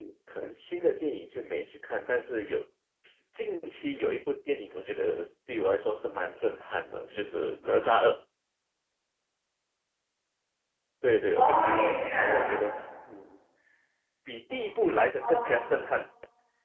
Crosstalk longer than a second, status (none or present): present